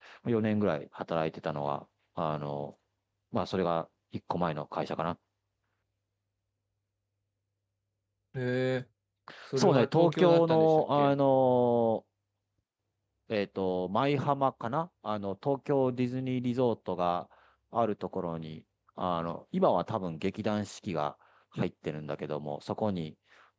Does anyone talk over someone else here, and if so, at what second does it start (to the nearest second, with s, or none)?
10 s